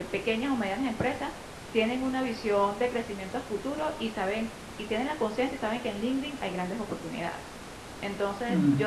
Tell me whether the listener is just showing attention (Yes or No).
Yes